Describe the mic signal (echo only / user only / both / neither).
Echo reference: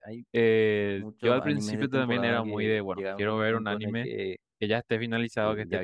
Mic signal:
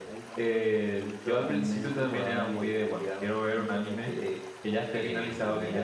both